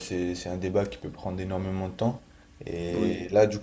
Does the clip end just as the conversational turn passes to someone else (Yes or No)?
No